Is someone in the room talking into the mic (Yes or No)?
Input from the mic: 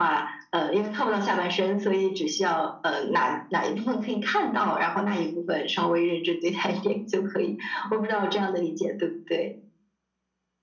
No